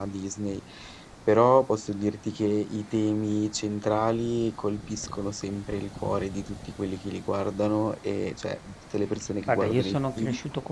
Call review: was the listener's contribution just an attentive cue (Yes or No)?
No